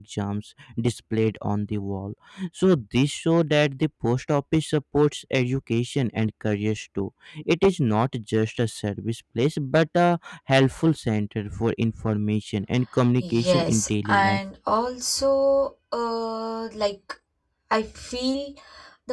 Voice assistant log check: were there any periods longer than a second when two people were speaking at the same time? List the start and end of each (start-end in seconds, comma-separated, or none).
13.2-14.4